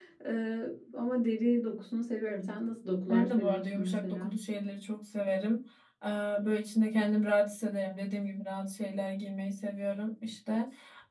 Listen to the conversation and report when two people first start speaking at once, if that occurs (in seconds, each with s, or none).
3.0 s